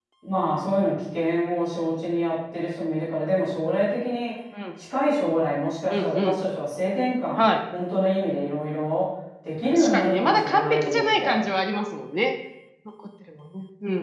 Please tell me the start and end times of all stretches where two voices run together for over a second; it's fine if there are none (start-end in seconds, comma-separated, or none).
9.7-11.4